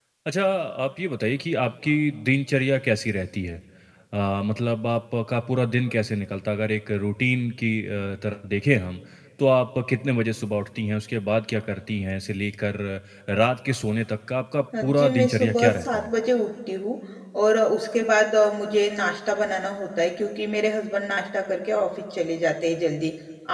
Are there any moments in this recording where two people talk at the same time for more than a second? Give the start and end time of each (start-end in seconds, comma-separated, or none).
14.8-16.1